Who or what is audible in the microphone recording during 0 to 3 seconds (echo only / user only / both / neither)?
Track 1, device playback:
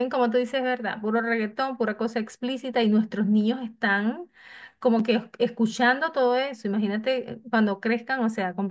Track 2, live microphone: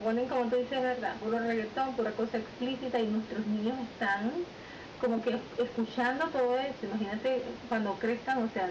echo only